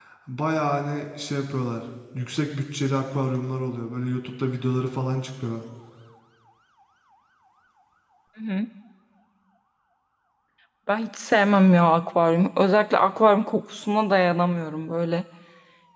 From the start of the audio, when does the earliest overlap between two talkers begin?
none

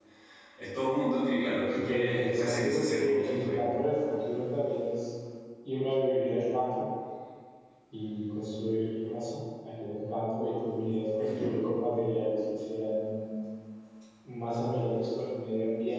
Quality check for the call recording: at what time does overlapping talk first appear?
1.7 s

